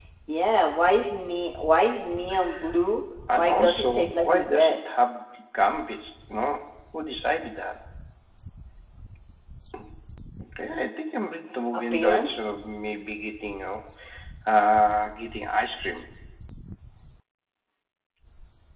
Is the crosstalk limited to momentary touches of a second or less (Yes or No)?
No